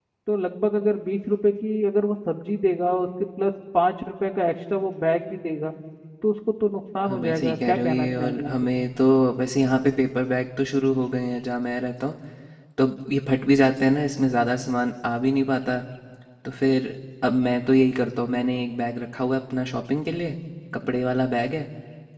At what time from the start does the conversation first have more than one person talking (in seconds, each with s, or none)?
7.1 s